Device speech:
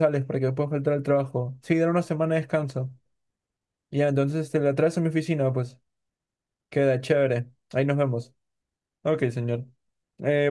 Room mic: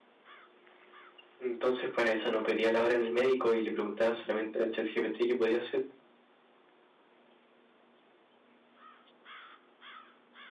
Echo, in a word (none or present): none